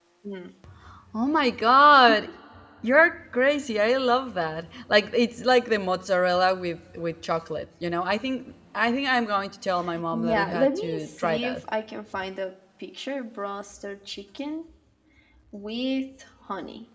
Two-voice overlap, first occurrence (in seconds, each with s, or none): 10.1 s